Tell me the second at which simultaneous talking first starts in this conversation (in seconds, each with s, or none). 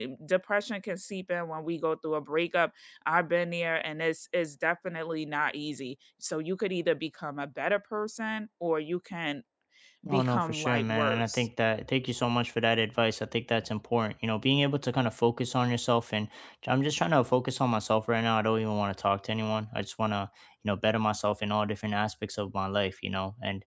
10.1 s